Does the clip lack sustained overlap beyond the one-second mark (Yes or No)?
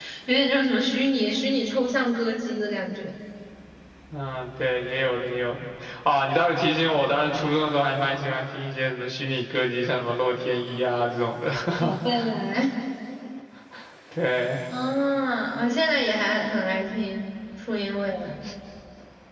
Yes